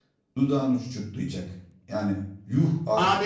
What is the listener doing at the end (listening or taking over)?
taking over